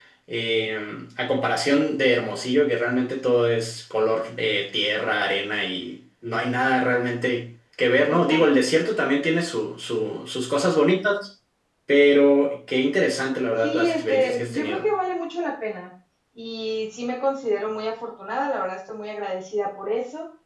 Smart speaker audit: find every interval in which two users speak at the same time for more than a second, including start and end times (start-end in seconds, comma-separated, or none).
13.6-14.8